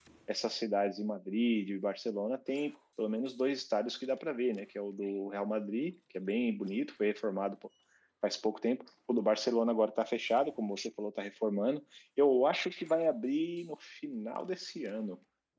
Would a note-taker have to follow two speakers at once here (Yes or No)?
No